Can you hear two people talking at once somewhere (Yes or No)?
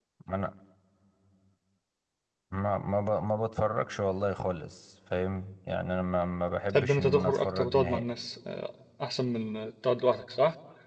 Yes